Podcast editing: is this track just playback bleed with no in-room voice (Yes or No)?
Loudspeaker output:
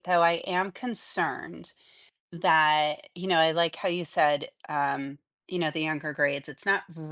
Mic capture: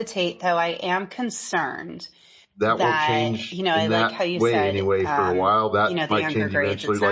No